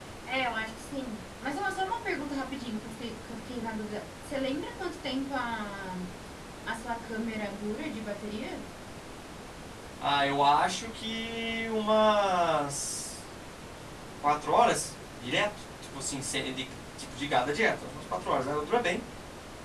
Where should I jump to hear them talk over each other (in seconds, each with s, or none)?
none